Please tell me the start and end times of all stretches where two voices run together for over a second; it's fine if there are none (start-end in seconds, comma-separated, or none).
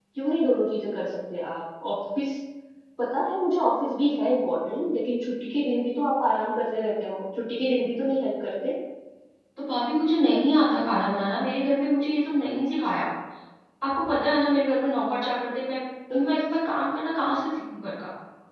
none